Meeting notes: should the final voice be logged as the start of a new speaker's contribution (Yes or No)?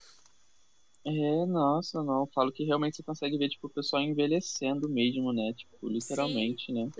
Yes